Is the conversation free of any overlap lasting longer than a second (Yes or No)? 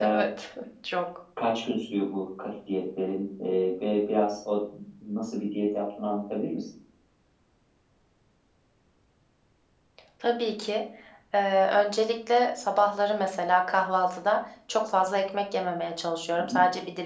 Yes